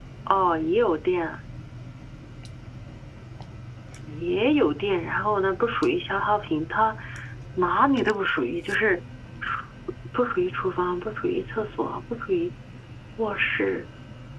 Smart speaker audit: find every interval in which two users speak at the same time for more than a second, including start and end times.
none

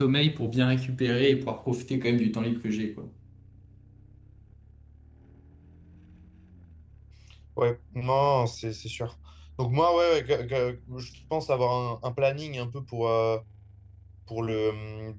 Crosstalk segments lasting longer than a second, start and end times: none

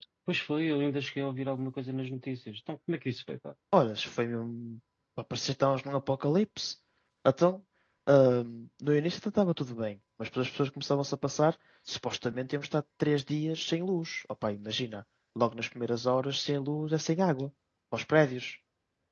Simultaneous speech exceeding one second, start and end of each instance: none

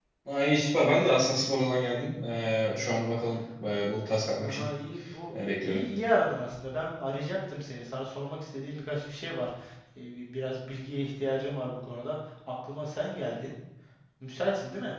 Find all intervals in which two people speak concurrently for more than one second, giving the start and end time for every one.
none

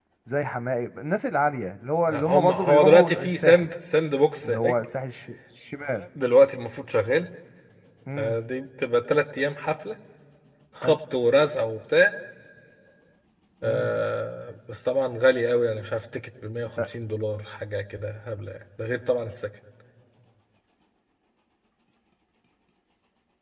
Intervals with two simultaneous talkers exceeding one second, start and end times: 2.1-3.7

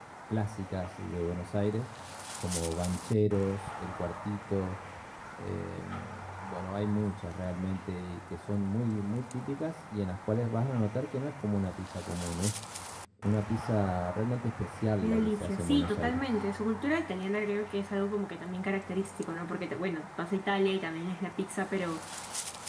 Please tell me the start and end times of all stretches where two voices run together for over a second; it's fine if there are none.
15.0-16.2

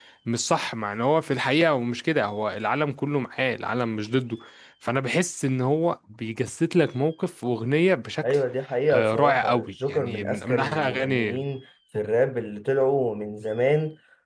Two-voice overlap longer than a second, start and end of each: 8.9-11.4

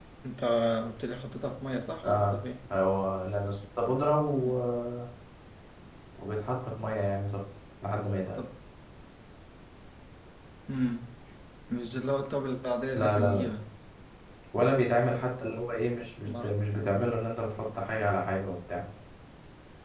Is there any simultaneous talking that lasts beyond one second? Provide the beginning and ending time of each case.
none

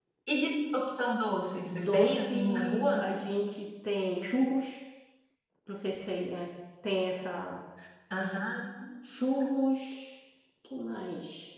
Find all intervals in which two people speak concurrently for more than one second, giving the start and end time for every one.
1.7-3.1

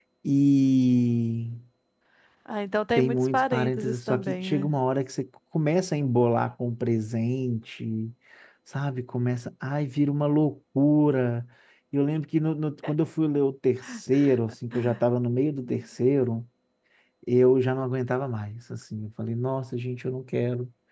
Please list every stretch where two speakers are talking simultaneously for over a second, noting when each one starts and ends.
3.0-4.8

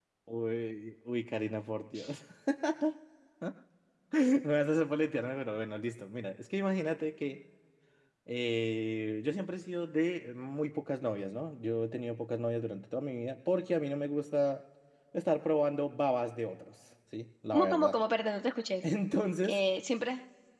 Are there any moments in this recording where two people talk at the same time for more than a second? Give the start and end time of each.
none

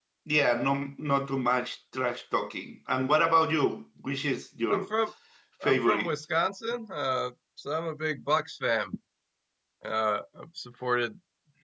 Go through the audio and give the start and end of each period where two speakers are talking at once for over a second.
none

